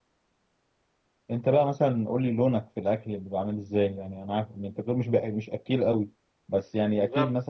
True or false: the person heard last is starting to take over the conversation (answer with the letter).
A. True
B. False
B